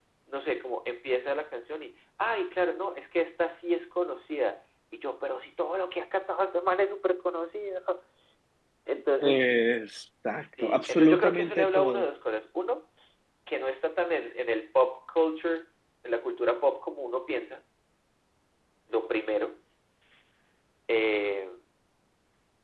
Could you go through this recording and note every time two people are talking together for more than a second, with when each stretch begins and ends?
10.6-12.0

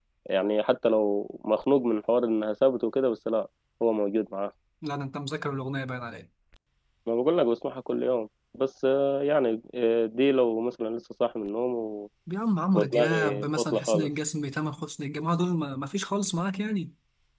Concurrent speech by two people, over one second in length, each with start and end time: 12.7-14.1

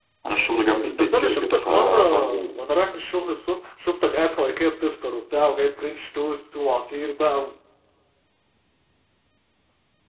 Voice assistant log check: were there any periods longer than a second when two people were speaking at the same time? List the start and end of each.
1.0-2.5

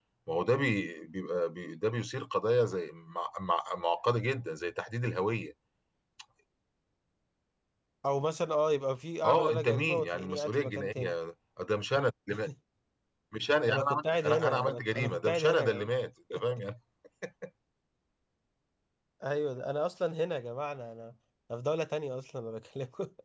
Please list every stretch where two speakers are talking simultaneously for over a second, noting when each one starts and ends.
9.2-11.1, 13.7-15.9

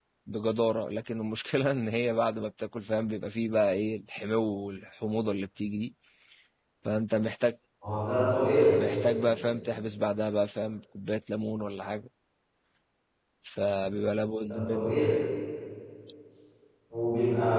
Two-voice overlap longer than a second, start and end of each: none

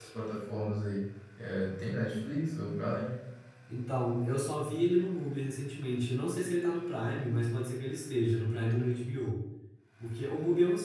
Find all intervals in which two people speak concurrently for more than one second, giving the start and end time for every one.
none

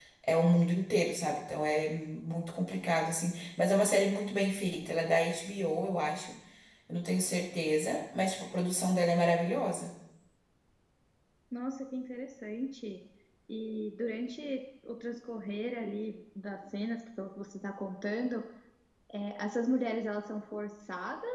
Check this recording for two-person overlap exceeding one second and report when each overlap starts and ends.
none

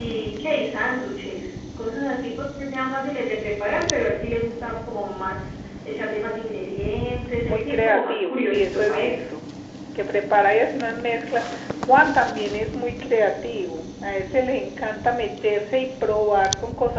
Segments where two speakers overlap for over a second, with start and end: 7.5-9.2

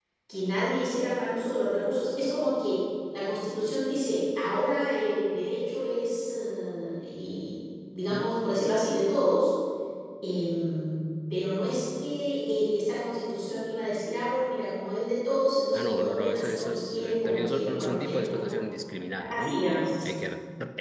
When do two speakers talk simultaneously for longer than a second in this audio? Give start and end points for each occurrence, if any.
15.7-18.6

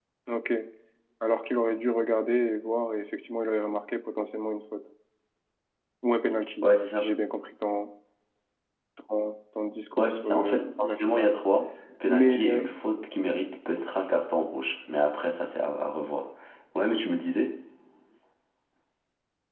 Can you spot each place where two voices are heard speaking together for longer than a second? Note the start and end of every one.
10.0-11.3

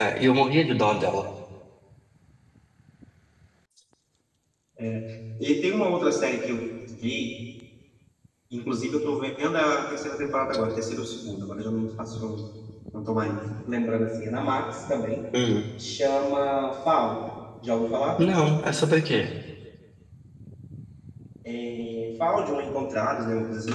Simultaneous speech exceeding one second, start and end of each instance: none

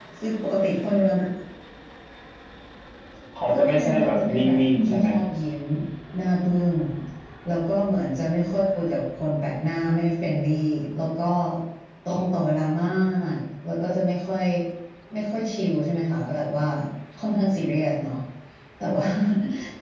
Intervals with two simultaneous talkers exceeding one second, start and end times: 3.5-5.1

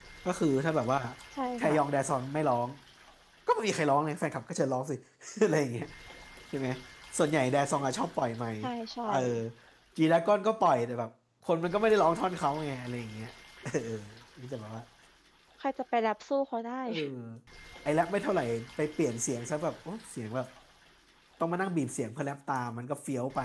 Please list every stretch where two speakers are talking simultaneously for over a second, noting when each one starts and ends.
none

